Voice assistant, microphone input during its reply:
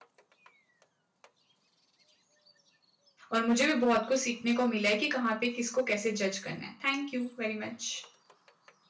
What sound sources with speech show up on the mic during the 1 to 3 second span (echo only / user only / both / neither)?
neither